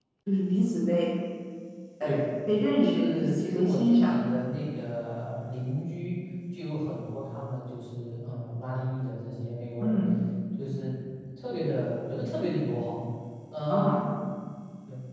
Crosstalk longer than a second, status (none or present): present